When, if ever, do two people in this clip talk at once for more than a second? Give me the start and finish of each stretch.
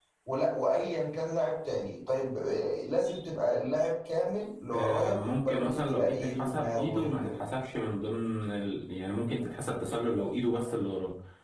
4.7-7.3

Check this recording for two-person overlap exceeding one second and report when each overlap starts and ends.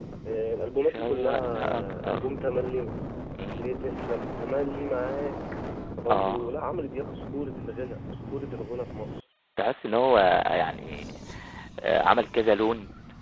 0.8-2.2

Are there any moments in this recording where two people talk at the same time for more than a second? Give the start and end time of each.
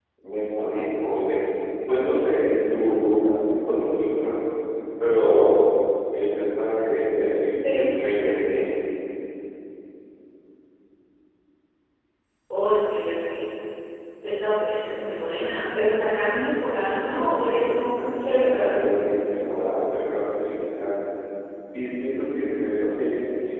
17.0-18.8

